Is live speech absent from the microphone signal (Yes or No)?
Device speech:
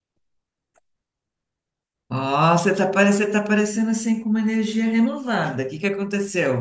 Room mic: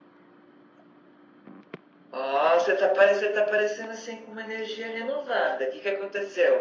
Yes